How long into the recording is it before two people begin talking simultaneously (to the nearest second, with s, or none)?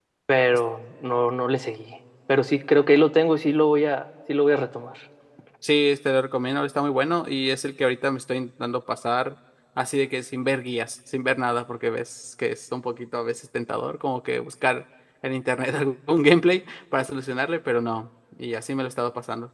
none